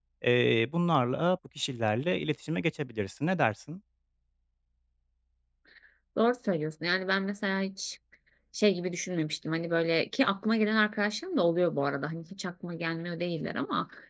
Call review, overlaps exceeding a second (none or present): none